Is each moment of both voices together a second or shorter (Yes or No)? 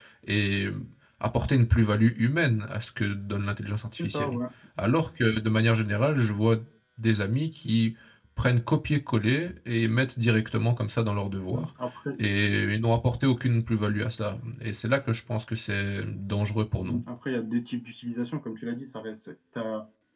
Yes